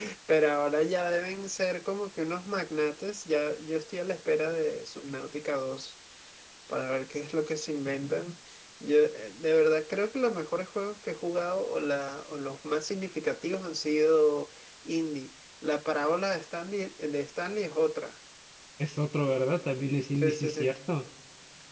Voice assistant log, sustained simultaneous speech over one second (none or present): none